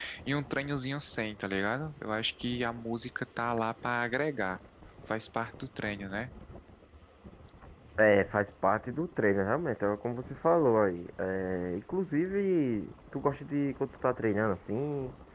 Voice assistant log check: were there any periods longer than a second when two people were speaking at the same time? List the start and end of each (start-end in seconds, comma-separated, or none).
none